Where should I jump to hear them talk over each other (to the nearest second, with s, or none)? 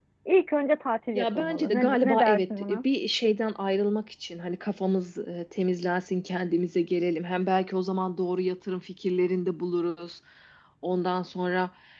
1 s